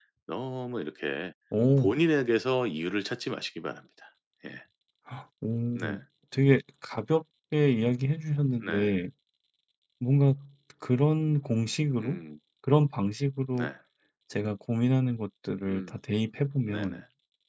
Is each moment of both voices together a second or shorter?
Yes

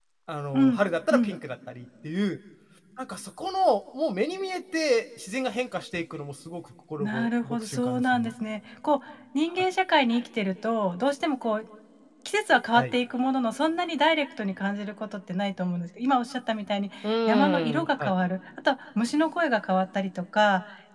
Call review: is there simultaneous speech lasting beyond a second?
Yes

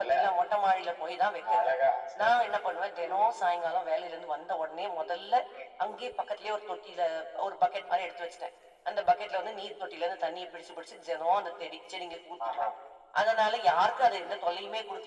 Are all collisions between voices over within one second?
Yes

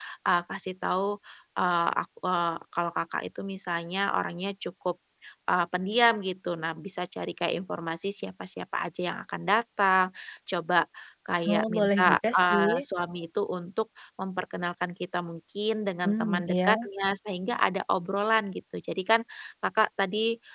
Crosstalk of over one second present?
Yes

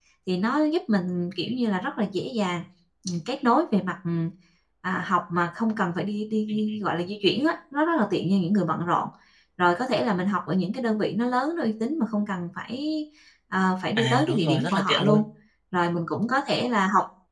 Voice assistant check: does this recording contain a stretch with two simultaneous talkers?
Yes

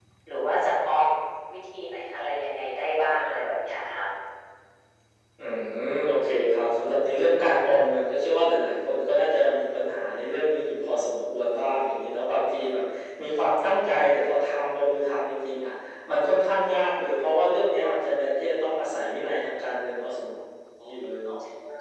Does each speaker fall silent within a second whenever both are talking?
Yes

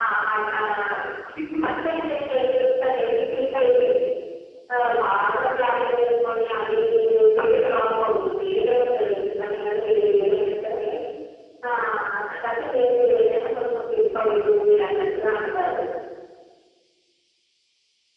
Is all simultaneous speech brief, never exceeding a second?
Yes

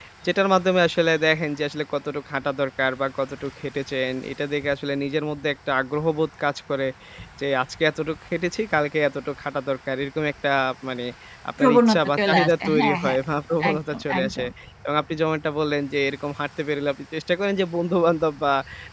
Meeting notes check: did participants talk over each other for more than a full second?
Yes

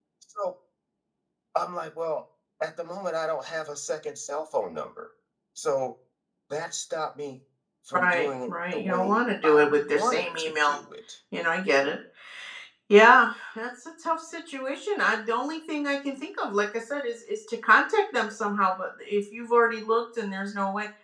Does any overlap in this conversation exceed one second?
Yes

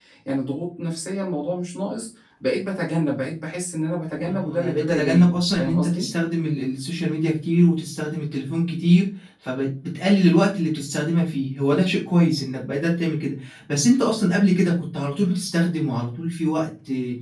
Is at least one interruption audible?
Yes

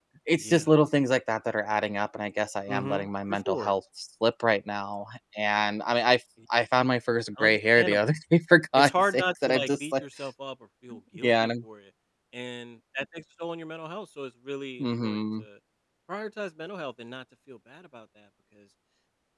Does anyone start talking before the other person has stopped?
Yes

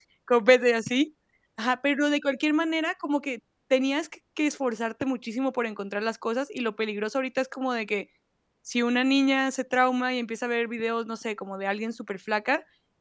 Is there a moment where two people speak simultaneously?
No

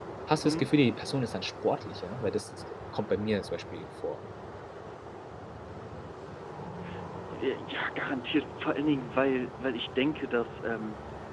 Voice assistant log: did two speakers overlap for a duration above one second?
No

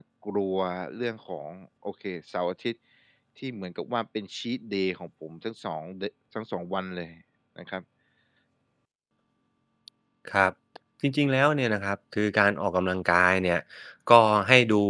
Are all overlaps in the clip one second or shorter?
Yes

